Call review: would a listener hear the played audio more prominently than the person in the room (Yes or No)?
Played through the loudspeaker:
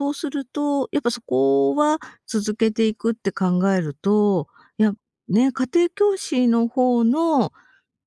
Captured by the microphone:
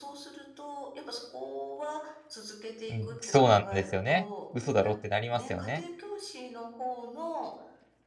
No